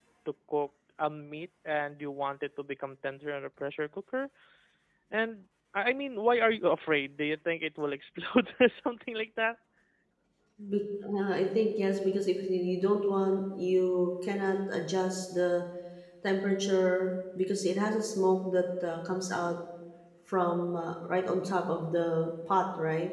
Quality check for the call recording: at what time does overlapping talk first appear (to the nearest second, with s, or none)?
none